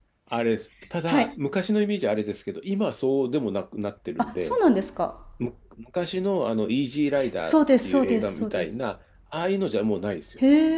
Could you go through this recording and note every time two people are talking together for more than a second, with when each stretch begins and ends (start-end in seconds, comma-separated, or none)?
7.4-8.7